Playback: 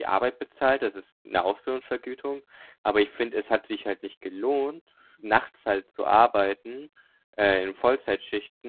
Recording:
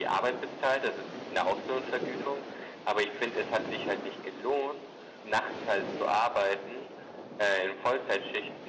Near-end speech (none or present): none